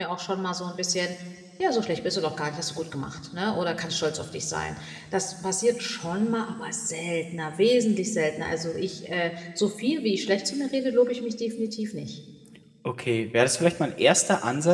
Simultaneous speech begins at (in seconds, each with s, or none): none